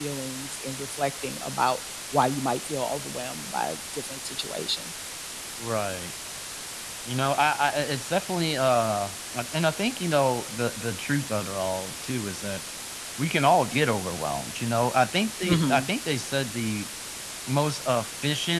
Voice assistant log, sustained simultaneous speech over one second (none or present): none